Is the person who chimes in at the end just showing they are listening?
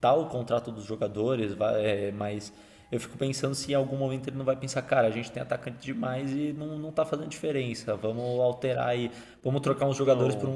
Yes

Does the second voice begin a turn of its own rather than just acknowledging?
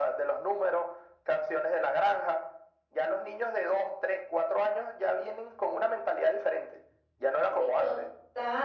Yes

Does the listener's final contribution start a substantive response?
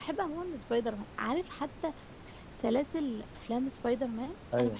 Yes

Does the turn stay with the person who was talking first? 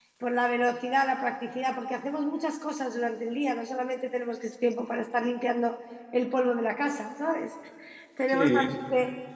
Yes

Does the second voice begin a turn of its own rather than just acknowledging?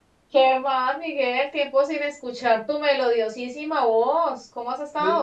Yes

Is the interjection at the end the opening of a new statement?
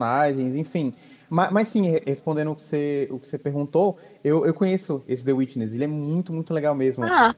No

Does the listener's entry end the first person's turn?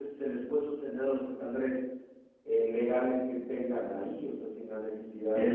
Yes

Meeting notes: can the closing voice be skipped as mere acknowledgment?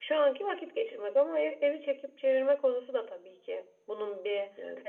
No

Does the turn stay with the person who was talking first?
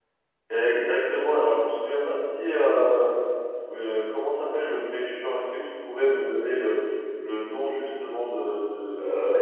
Yes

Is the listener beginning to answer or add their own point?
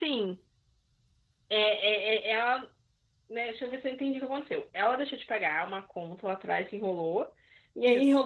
No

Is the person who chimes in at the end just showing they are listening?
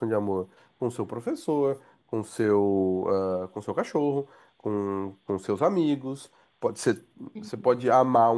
Yes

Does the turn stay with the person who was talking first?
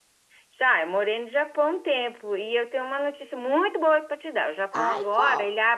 Yes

